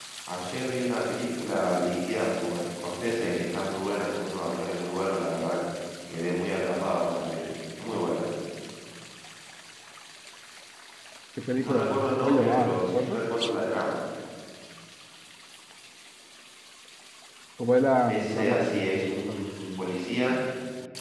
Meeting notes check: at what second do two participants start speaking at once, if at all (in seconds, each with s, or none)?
11.6 s